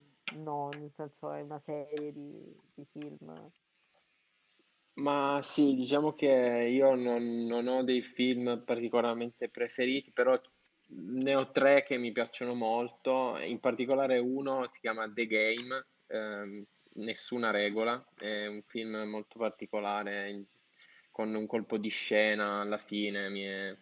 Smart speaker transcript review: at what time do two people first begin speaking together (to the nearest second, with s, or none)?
none